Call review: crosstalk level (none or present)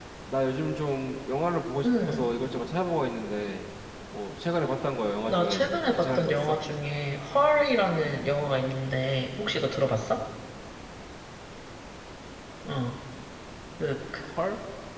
present